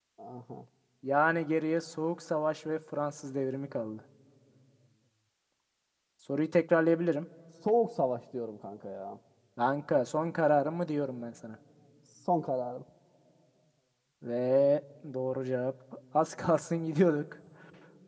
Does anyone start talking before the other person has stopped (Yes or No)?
No